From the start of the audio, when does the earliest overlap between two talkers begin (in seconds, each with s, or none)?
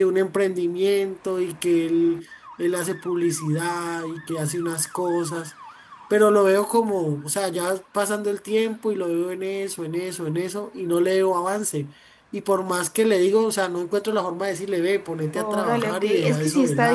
15.4 s